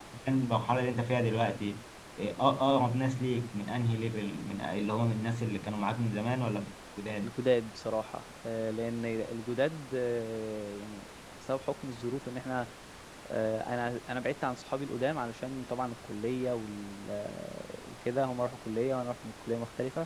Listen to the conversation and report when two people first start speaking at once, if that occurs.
none

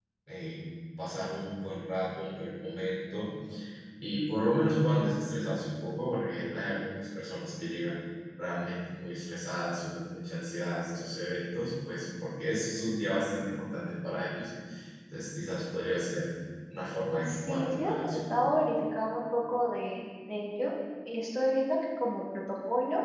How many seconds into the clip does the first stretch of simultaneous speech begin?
17.0 s

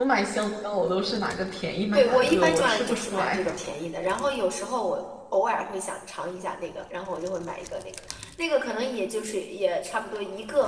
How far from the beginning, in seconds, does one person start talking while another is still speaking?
1.9 s

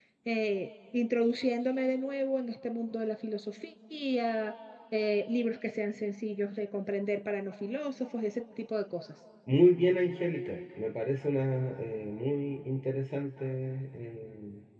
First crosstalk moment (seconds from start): none

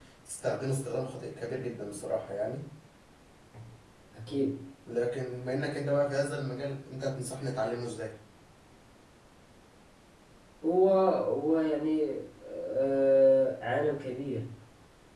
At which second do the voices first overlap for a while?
none

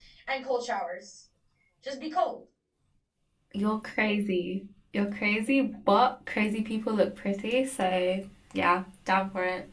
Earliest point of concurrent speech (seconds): none

